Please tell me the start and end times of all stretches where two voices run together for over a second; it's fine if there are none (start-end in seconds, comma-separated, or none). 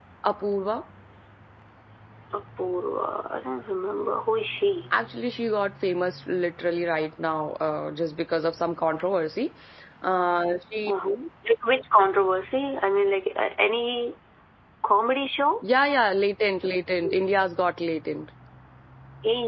none